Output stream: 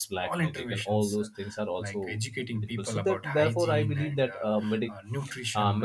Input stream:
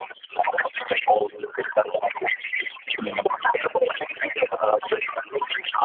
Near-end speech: present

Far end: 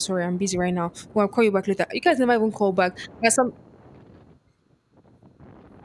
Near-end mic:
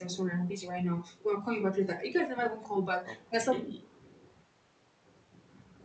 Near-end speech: present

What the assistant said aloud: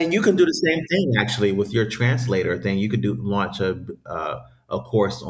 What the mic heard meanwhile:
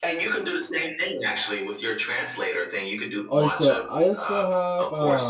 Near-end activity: present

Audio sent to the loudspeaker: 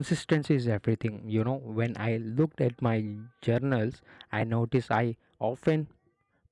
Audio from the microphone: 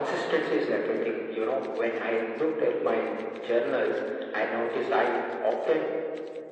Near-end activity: none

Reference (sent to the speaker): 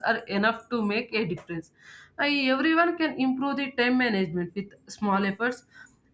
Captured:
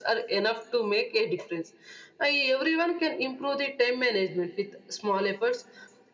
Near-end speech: none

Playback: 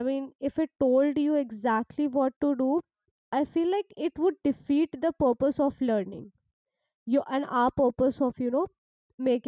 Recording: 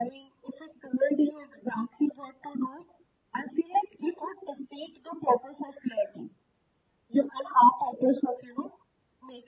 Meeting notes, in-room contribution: none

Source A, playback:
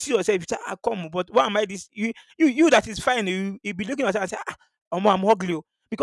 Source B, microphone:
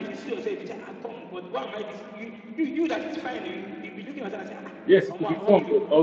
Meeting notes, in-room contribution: present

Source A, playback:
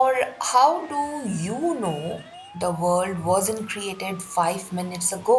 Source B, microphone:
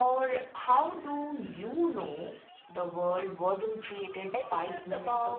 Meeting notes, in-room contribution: present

